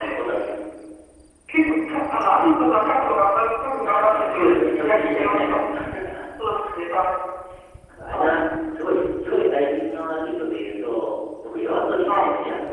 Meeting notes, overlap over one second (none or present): present